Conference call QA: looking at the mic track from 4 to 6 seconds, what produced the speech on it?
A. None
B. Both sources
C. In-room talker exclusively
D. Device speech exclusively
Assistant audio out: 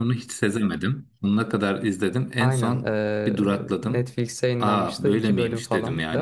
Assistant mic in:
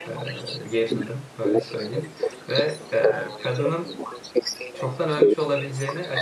B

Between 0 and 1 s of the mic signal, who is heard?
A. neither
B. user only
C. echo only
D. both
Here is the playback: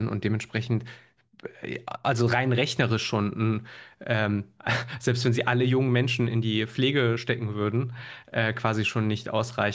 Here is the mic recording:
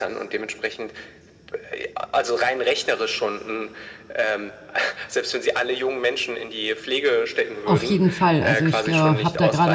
C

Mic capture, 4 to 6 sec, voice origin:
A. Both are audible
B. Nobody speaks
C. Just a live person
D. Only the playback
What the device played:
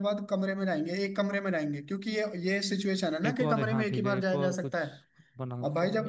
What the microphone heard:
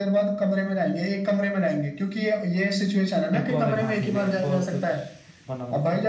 D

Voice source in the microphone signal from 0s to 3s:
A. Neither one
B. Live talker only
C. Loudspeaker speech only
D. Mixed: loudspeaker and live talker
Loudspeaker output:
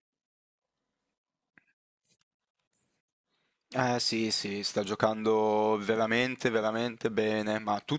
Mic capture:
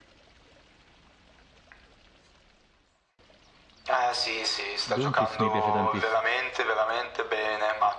A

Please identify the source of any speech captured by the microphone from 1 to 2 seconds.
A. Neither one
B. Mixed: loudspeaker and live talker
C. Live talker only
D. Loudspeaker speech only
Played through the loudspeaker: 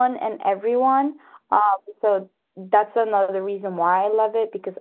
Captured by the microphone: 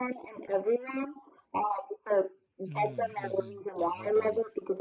D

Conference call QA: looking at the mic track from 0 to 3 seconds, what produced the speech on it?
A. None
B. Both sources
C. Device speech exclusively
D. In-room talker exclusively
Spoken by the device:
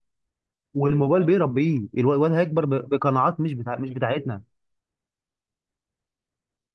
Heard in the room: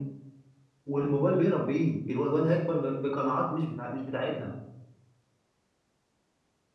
C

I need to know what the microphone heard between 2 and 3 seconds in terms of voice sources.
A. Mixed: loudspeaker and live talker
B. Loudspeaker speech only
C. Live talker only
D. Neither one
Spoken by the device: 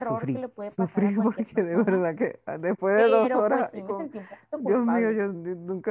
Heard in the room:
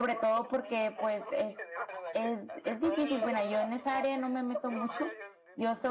A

